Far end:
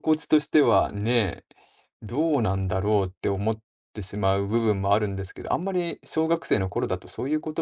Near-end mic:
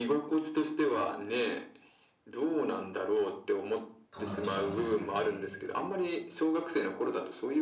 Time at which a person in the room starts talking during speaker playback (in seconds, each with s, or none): 4.1 s